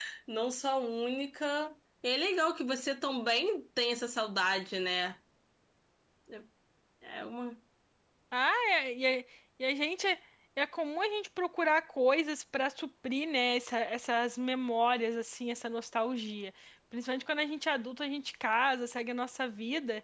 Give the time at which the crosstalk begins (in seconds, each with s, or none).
none